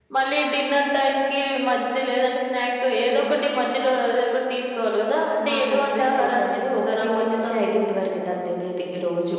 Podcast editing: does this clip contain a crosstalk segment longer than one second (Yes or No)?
Yes